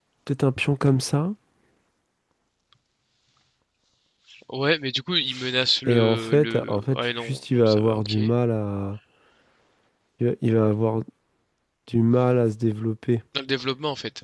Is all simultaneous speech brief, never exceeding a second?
No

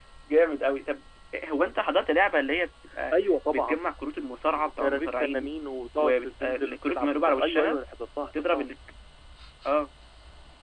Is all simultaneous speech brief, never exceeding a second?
No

